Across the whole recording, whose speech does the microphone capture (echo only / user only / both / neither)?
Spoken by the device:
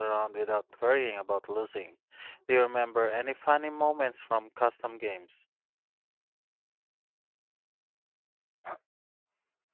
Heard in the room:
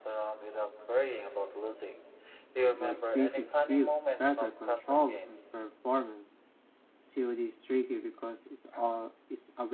both